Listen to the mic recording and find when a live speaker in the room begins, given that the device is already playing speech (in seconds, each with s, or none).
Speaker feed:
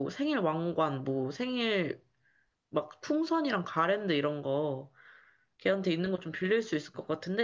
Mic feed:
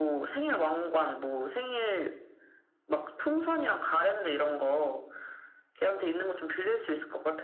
none